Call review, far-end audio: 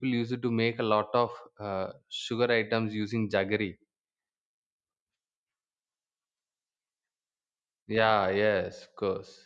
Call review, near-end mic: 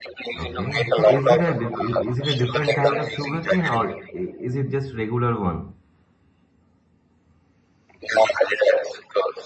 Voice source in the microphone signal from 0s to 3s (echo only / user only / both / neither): both